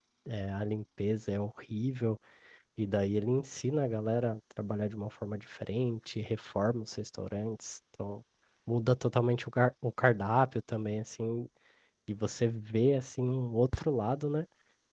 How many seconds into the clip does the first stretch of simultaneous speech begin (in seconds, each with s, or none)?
none